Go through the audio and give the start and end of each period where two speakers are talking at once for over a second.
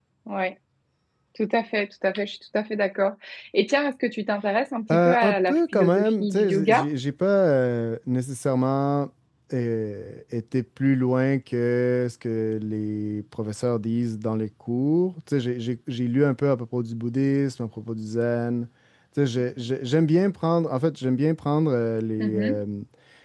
4.9-6.9

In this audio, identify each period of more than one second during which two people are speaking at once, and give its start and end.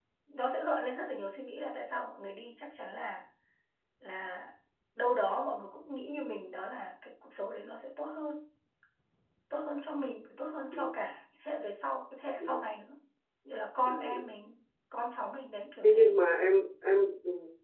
none

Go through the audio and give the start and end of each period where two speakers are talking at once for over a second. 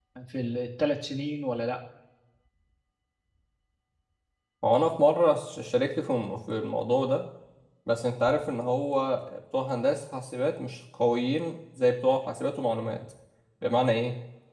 none

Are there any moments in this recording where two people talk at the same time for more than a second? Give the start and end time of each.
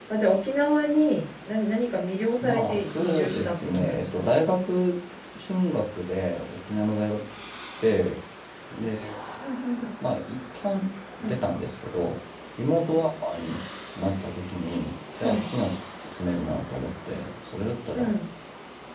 2.4-4.3

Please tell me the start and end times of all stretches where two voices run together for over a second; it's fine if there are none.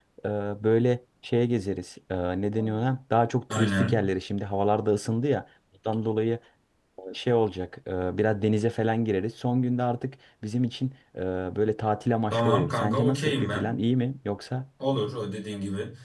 12.3-13.7

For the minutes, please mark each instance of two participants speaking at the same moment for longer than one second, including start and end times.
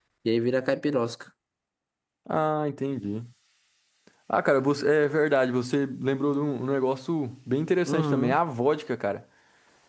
none

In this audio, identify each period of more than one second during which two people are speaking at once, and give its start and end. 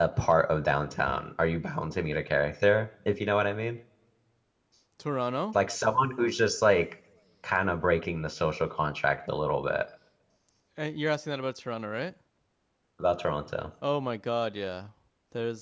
none

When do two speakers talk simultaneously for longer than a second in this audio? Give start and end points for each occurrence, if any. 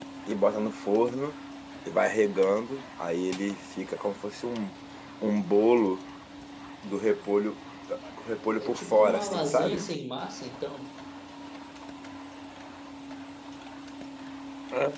8.6-9.8

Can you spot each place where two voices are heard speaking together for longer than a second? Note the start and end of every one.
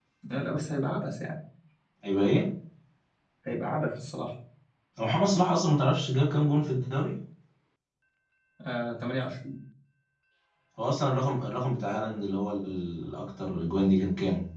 none

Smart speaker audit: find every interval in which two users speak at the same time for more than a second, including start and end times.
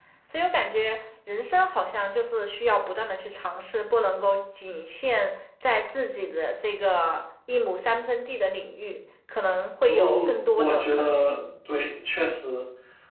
9.9-11.4

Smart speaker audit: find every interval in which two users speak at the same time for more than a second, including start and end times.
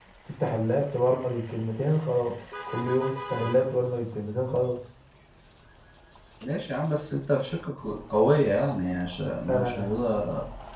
none

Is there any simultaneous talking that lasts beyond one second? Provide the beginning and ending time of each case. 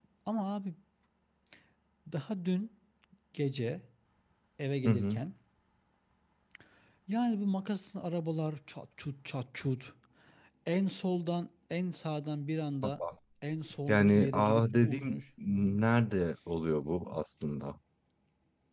13.9-15.2

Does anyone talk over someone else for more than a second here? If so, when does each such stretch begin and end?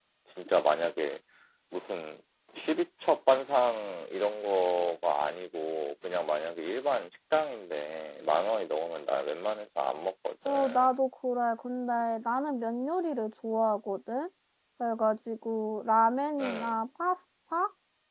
none

